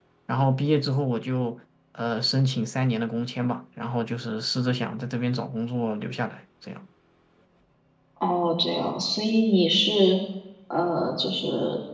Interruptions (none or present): none